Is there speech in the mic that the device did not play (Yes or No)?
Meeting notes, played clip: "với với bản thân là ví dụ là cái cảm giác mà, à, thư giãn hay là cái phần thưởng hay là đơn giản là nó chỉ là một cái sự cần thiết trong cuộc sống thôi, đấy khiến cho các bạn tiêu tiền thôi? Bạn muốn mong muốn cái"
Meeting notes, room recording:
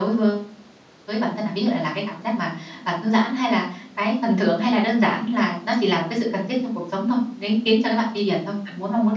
No